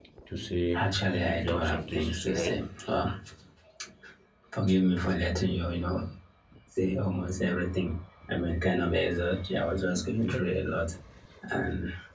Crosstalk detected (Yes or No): Yes